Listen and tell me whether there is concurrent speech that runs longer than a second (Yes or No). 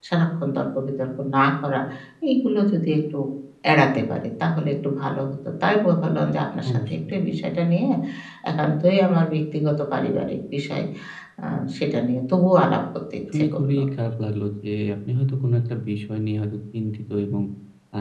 No